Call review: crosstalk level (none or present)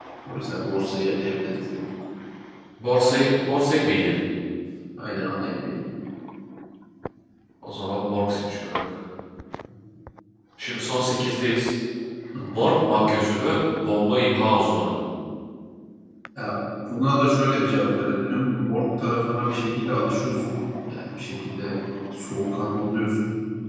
none